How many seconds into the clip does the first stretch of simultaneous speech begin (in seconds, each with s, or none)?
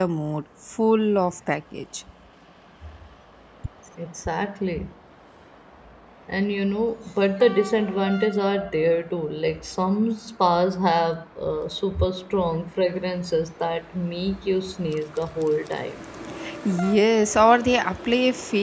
none